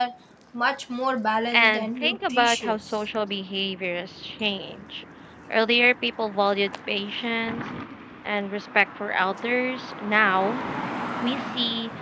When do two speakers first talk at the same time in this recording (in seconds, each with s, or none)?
1.5 s